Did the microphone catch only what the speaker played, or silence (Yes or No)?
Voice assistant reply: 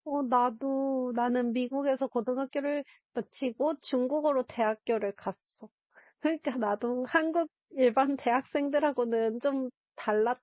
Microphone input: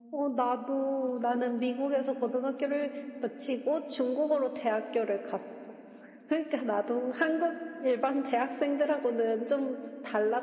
Yes